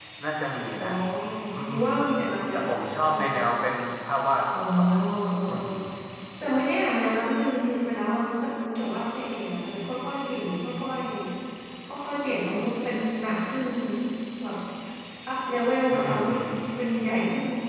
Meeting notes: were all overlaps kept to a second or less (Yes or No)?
Yes